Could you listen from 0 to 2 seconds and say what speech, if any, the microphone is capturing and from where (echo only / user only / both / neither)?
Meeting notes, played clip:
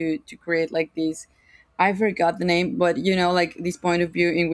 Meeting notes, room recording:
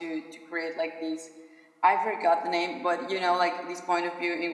echo only